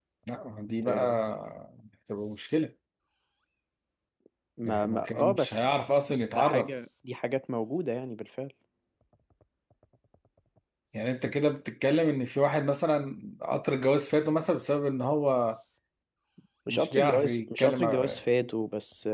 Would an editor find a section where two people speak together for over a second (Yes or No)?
Yes